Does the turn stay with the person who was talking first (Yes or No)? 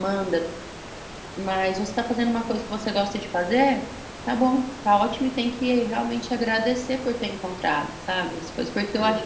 Yes